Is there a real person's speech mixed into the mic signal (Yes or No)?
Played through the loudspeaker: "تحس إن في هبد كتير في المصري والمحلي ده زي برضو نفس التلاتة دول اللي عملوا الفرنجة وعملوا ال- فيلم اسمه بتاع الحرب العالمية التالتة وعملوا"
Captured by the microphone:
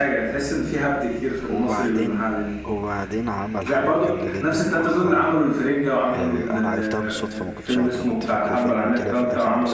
Yes